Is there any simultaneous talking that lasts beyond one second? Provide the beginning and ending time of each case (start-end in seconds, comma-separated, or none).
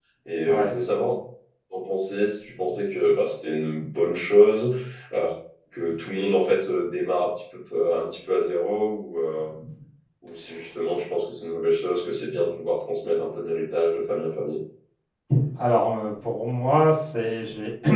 none